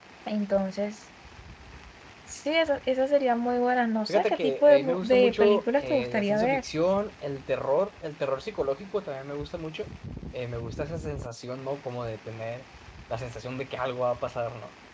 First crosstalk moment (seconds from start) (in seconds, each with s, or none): 4.1 s